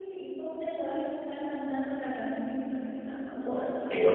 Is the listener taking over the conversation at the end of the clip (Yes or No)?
Yes